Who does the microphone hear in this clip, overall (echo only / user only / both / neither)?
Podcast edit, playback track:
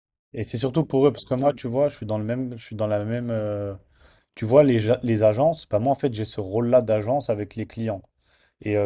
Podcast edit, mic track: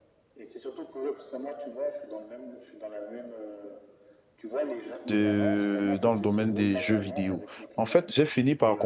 both